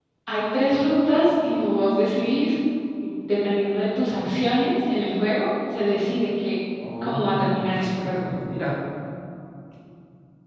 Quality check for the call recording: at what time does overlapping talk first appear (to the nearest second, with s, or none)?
7 s